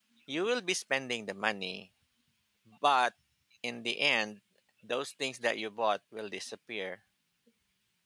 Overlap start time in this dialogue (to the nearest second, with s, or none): none